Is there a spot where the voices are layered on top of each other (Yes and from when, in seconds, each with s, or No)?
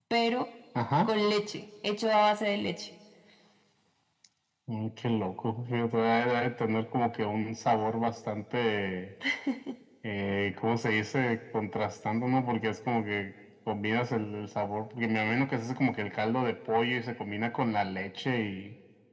No